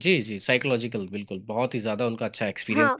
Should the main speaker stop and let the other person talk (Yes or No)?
Yes